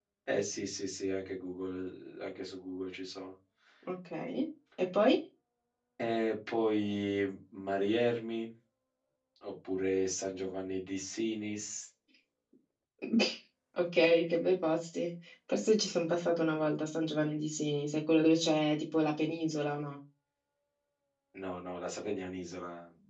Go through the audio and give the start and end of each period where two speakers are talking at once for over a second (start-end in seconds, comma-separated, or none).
none